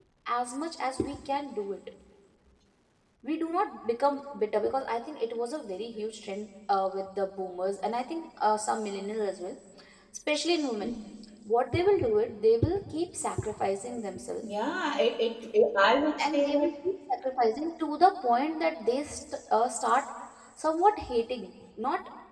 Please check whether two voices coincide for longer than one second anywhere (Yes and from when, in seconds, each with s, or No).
No